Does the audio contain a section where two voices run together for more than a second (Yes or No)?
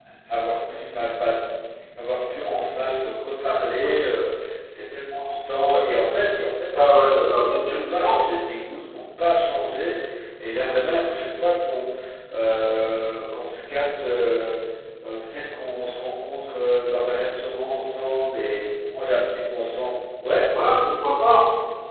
No